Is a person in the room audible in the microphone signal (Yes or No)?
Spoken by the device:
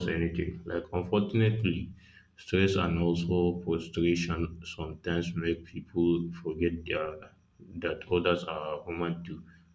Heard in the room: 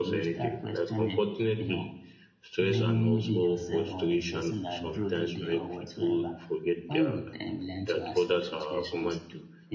Yes